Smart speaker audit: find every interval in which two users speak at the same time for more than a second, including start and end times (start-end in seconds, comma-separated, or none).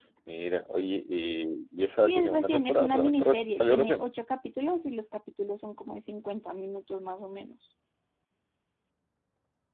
2.0-4.0